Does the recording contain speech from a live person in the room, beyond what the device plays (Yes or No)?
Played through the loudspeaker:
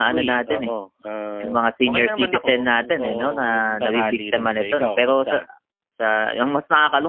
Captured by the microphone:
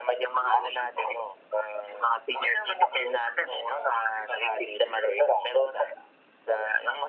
No